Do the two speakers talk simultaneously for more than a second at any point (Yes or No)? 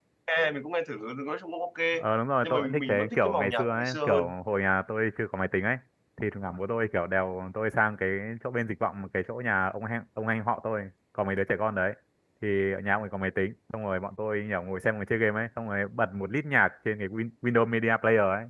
Yes